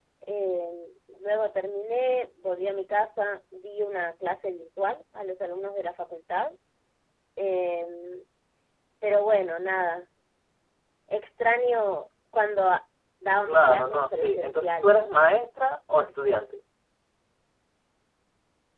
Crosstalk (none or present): present